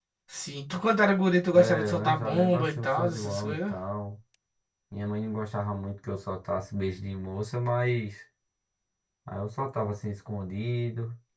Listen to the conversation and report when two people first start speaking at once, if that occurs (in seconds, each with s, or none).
1.5 s